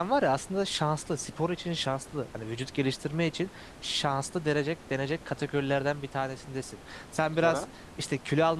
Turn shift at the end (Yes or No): No